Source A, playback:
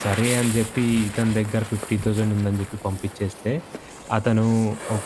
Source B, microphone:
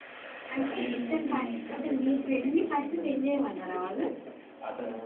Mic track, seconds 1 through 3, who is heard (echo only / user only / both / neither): both